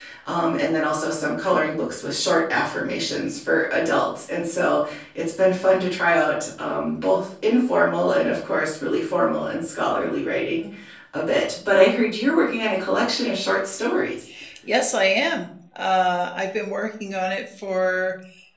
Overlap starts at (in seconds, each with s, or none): none